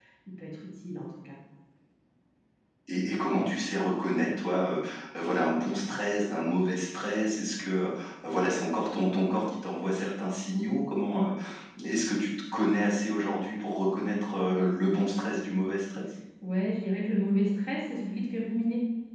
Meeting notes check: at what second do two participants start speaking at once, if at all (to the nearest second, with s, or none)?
none